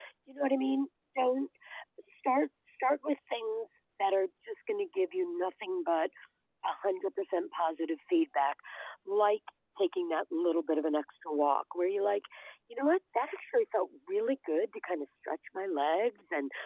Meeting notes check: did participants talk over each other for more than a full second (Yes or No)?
No